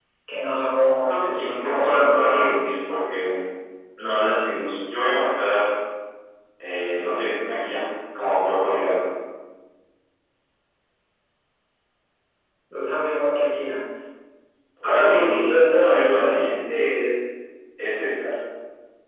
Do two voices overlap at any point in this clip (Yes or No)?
Yes